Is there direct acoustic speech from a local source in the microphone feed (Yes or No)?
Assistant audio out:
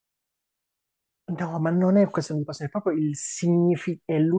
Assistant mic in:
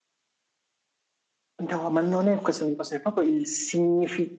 No